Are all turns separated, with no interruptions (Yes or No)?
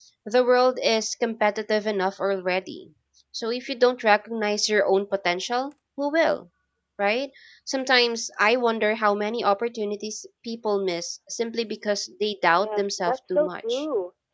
No